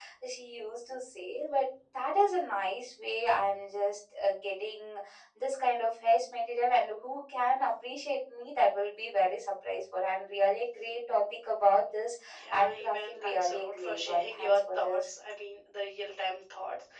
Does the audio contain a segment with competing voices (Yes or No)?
Yes